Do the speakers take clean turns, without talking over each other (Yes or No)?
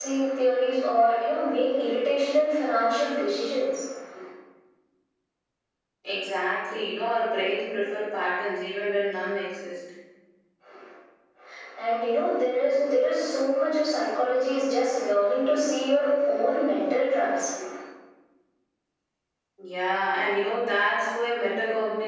Yes